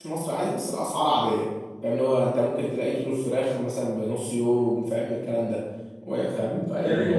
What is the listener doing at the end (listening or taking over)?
listening